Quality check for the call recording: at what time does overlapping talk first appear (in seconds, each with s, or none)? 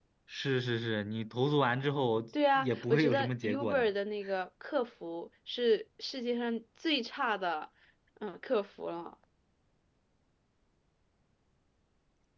2.5 s